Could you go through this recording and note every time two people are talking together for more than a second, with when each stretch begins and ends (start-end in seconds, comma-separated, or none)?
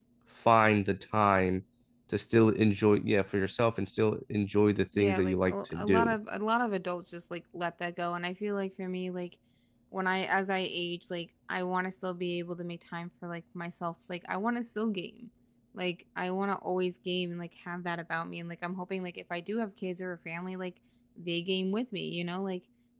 5.0-6.2